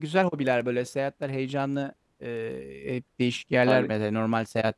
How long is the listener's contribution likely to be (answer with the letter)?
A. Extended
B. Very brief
B